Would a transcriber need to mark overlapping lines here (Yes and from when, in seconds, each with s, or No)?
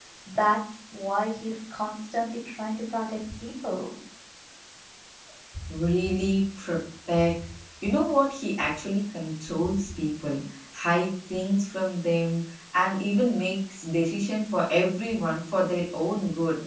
No